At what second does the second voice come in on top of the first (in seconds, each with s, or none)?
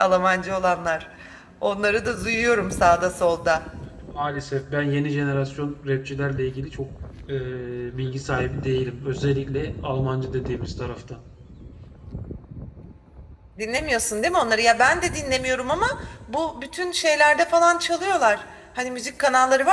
none